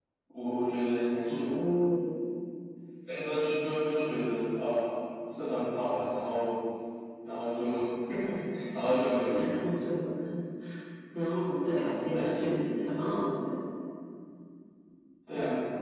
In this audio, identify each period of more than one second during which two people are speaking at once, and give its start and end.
none

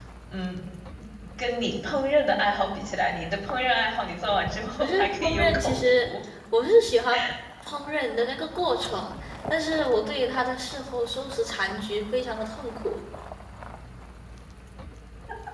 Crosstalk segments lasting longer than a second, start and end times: 4.8-6.1

